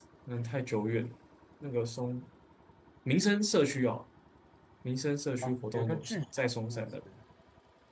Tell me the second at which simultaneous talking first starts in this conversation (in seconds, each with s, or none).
5.4 s